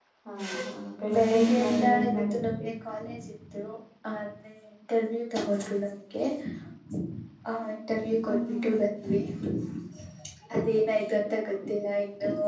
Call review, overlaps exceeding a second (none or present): present